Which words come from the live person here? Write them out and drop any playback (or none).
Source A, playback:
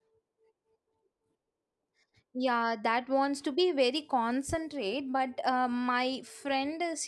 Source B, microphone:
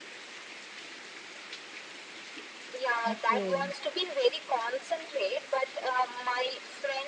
Okay. Okay.